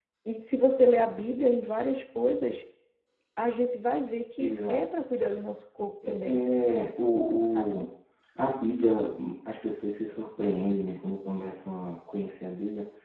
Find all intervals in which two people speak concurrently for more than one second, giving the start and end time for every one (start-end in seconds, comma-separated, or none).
none